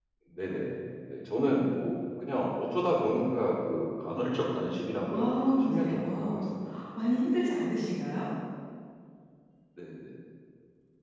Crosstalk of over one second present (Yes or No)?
Yes